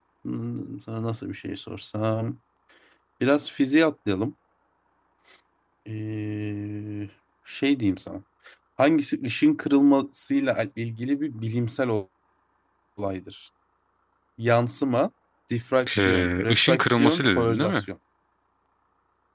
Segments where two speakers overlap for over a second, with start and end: 16.0-17.8

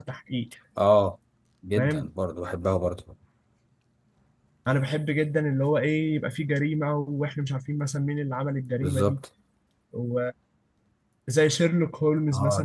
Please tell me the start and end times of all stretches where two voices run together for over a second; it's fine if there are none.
none

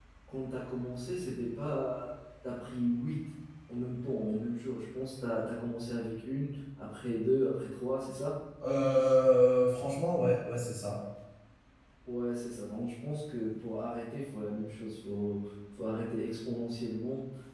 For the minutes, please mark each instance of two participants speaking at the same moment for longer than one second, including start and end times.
none

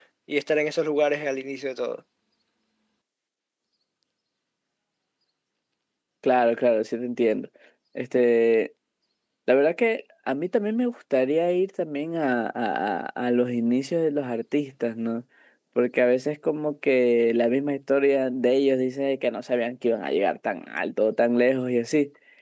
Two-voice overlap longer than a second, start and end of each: none

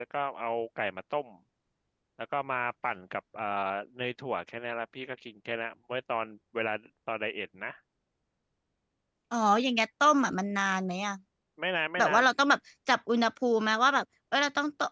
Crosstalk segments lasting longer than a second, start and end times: none

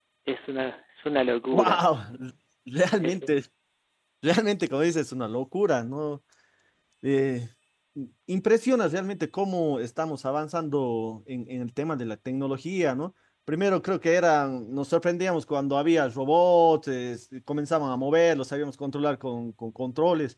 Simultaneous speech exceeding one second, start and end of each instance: none

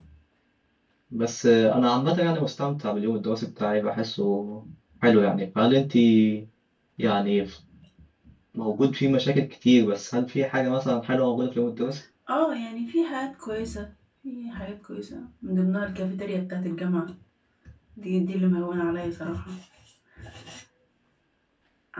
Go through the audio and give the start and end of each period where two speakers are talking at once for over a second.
none

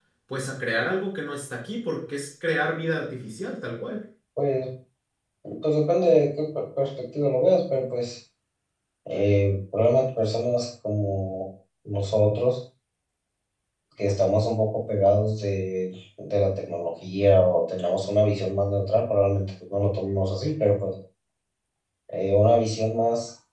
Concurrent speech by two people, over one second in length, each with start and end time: none

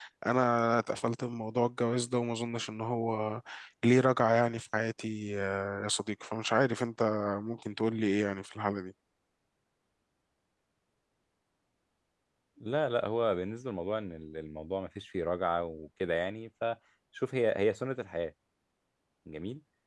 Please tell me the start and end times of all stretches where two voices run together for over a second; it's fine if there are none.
none

